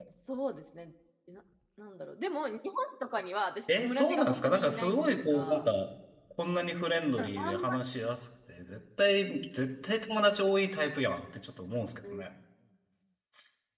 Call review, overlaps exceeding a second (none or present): present